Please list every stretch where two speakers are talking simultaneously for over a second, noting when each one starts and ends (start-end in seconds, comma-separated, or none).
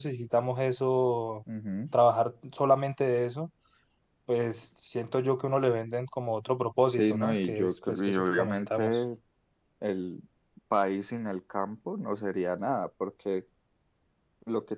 6.9-9.0